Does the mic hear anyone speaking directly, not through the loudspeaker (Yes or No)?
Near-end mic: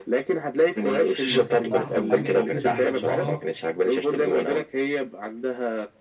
Yes